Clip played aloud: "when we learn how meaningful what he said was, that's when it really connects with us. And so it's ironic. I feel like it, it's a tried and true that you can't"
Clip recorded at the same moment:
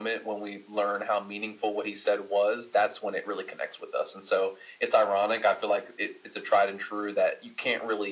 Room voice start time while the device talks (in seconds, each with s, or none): none